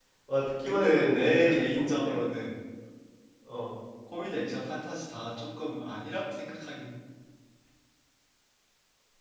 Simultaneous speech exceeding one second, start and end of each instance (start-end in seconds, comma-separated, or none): 0.7-2.1